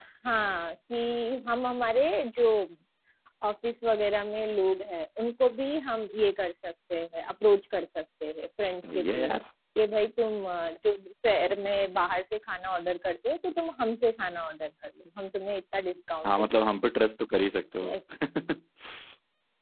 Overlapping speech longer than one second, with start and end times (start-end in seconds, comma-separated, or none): none